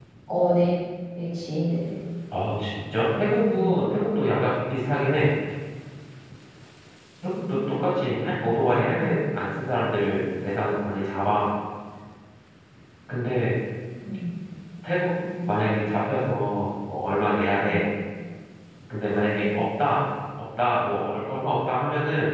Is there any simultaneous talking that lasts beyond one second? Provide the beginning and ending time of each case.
none

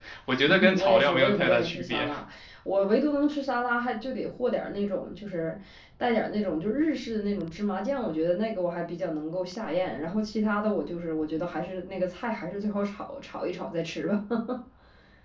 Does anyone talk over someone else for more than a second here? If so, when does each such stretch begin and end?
0.6-2.1

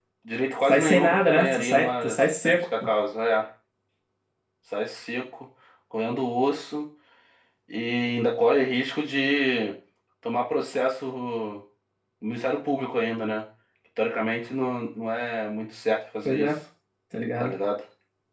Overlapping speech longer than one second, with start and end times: 0.7-1.9

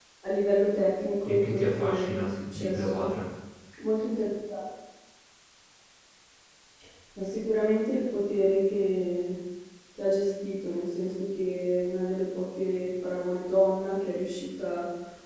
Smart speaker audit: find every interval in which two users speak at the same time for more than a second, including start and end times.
1.2-3.1

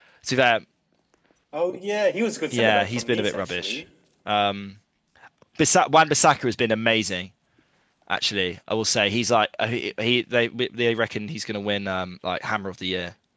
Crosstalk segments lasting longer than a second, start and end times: 2.5-3.8

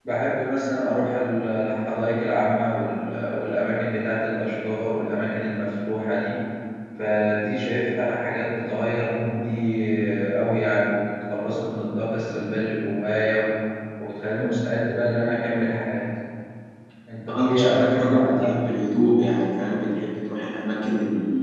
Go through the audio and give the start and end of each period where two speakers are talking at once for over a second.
17.3-18.6

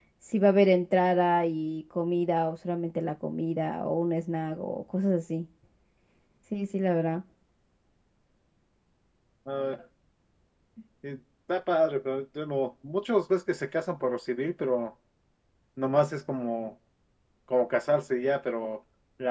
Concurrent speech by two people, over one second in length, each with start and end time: none

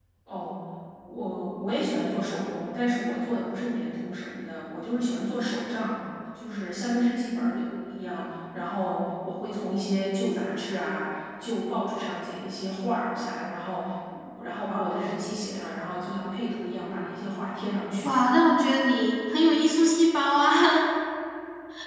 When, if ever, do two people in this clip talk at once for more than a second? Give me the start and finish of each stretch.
none

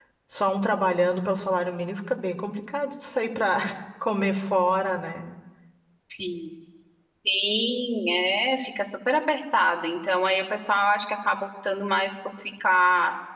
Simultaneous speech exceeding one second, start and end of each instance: none

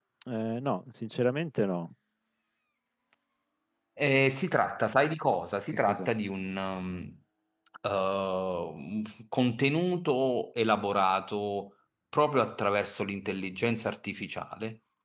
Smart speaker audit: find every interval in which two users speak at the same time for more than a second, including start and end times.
none

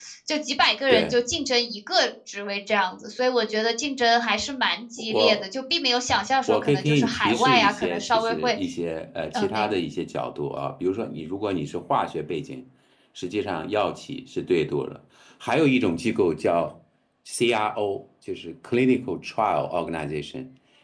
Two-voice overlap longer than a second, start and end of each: 6.5-8.6

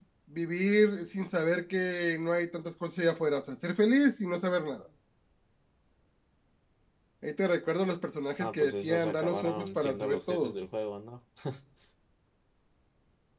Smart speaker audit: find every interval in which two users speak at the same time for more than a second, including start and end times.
8.4-10.5

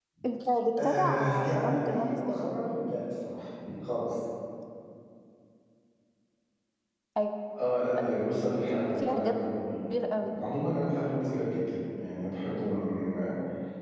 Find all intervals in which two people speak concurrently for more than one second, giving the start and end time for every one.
0.8-2.5

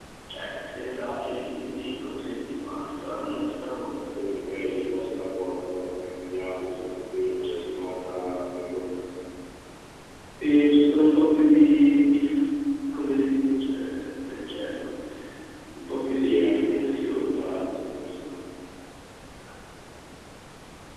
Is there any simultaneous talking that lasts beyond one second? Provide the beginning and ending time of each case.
16.1-17.4

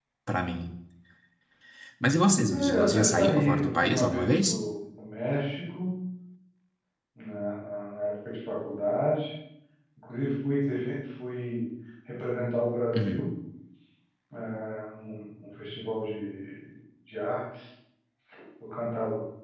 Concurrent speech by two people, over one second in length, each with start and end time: 2.5-4.5

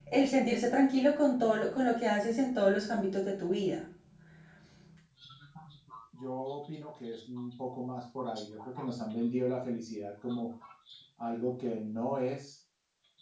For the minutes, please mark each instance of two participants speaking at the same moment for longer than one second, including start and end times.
none

